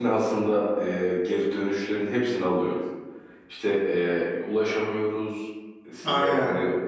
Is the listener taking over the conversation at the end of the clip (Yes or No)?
No